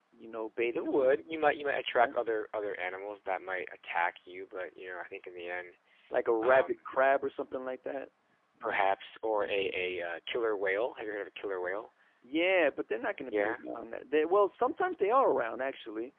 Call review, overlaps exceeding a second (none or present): none